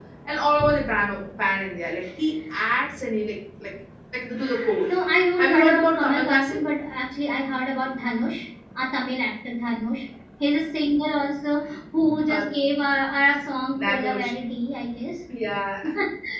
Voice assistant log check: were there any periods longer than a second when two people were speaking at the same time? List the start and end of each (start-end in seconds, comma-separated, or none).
5.4-6.6